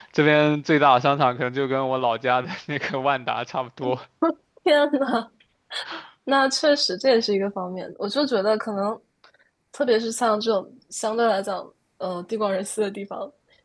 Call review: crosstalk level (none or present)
none